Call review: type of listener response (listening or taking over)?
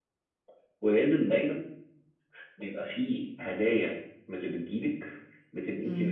listening